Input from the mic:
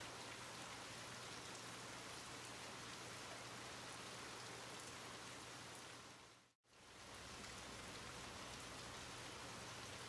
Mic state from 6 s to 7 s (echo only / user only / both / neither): neither